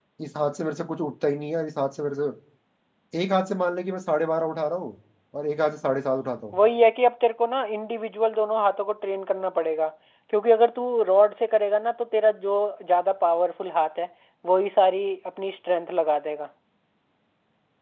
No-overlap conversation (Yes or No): Yes